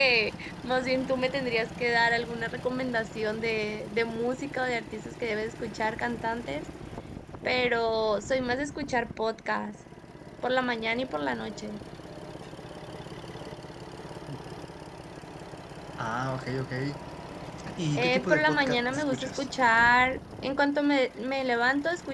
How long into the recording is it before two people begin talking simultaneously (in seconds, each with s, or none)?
18.0 s